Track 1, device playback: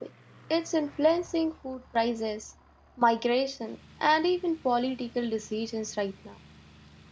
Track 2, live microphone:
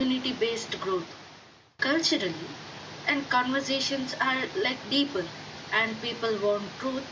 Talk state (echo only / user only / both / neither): user only